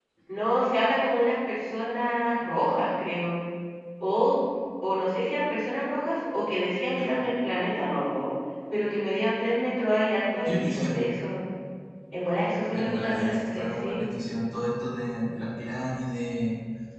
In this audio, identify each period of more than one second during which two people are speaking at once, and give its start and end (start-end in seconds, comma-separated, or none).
12.7-14.0